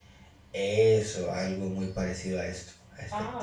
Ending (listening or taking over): taking over